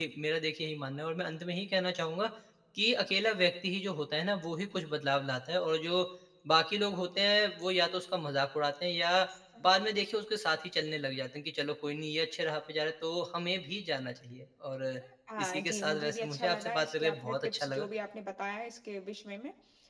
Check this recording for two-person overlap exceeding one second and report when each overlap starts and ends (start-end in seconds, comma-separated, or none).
15.4-17.9